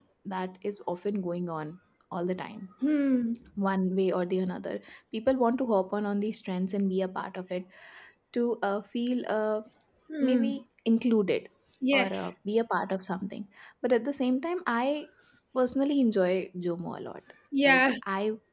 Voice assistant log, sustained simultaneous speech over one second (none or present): none